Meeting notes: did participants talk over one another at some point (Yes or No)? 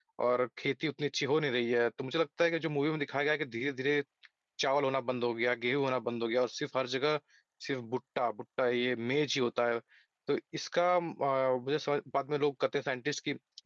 No